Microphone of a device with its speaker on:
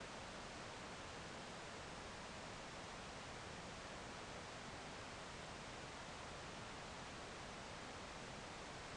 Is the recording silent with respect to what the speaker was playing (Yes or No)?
Yes